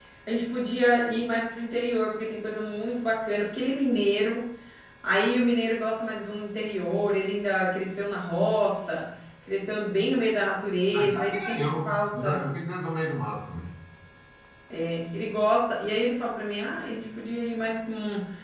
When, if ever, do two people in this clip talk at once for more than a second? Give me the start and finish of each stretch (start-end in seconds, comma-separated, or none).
10.9-12.4